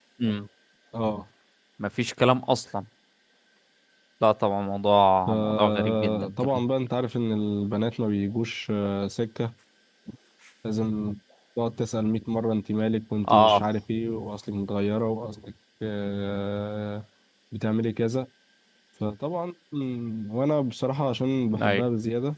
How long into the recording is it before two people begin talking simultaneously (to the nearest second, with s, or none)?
5 s